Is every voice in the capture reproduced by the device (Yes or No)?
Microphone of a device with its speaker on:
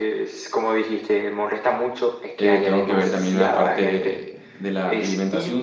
No